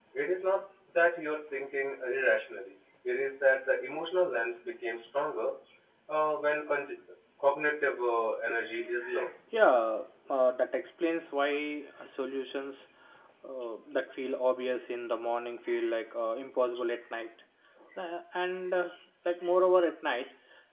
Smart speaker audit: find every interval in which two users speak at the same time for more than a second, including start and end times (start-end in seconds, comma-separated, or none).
none